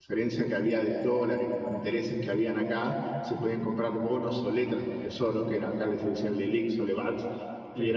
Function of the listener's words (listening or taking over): listening